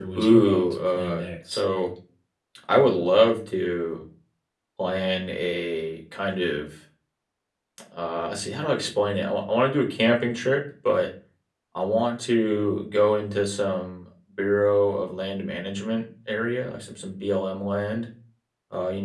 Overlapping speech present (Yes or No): Yes